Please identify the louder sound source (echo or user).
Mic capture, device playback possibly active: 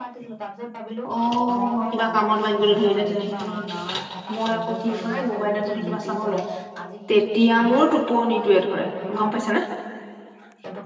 user